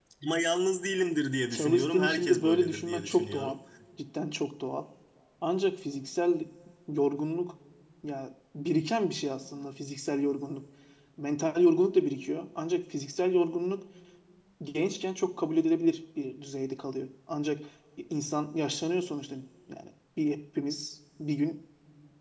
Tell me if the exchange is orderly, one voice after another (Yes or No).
No